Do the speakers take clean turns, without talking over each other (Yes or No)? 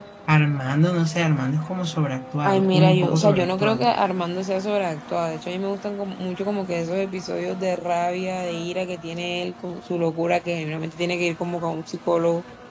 No